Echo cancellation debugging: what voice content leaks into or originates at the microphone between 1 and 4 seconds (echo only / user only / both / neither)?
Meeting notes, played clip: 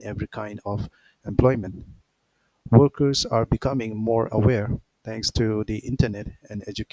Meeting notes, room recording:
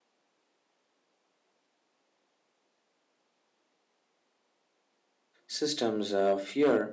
neither